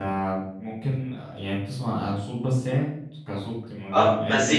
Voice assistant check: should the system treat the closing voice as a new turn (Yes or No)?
Yes